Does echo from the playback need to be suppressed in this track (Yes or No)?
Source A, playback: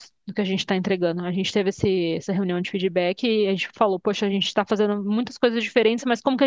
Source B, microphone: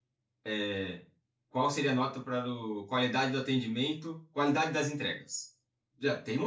No